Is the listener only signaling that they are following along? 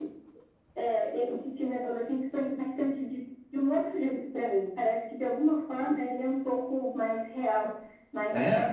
Yes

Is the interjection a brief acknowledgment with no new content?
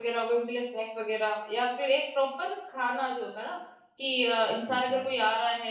Yes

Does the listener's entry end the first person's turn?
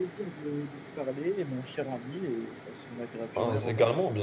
Yes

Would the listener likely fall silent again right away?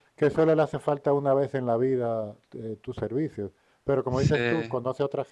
Yes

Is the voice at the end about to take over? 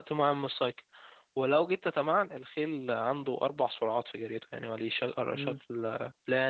No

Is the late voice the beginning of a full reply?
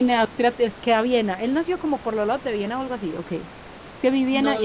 Yes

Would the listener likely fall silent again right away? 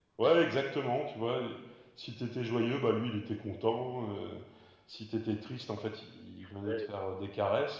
Yes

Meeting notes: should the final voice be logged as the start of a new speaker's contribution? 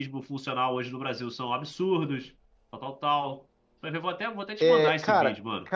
Yes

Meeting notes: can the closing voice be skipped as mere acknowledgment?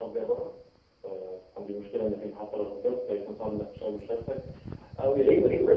No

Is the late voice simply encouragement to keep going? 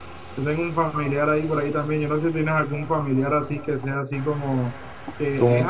Yes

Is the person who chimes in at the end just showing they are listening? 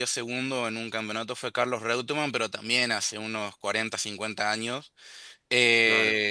Yes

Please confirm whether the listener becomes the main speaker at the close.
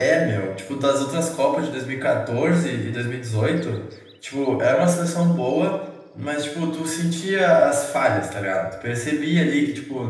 No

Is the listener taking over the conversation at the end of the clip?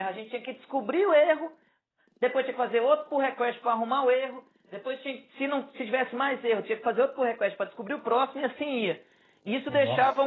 No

